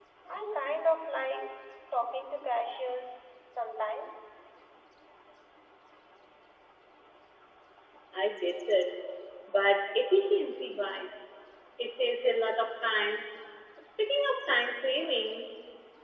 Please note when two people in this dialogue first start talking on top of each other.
none

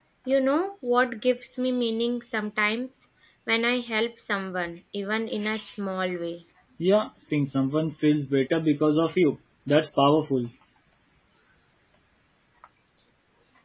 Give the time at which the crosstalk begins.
none

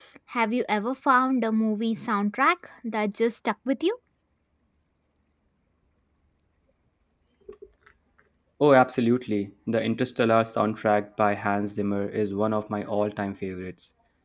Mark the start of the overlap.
none

